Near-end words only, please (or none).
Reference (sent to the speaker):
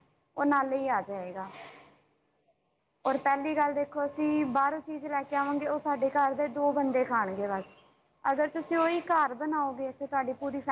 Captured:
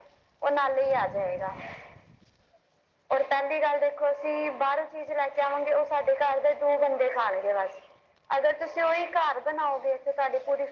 none